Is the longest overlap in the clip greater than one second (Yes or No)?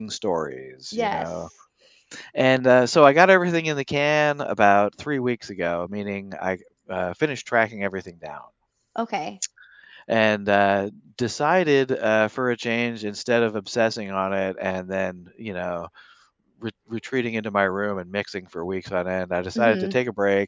No